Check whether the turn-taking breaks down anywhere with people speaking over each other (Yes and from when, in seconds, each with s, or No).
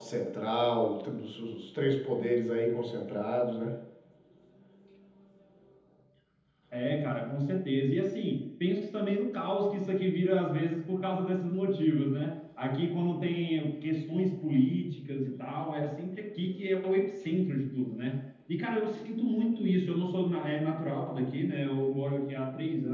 No